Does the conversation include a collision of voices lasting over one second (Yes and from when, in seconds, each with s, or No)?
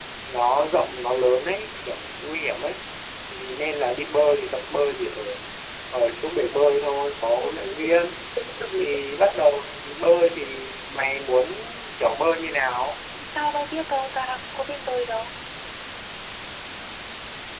No